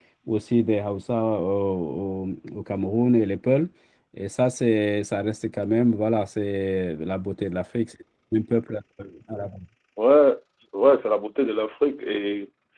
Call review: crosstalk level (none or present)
none